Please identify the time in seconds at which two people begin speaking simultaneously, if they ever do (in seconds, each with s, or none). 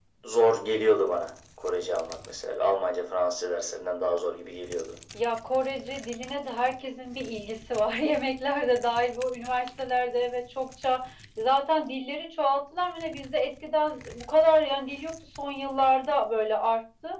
none